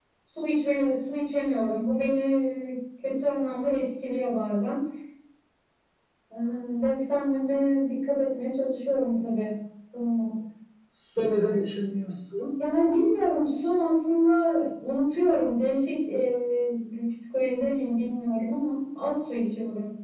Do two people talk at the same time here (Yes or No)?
No